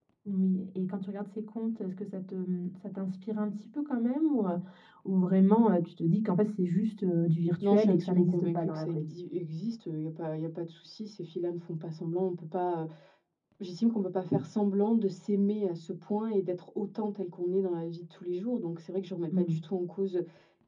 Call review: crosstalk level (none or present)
present